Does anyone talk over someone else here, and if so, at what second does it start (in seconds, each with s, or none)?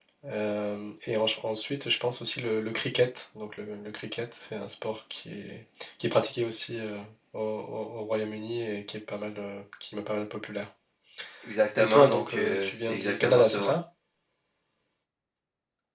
11.8 s